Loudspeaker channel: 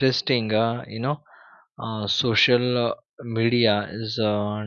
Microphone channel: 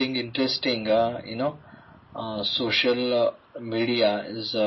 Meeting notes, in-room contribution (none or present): none